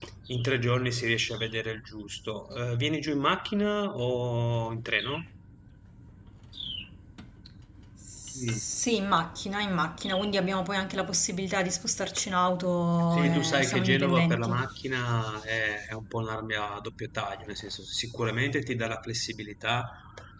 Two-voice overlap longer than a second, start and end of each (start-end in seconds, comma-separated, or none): 13.1-14.6